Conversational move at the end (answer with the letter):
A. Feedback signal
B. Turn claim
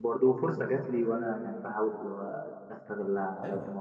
B